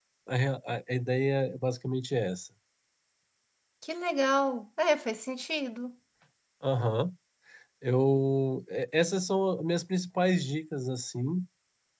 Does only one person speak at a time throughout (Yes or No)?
Yes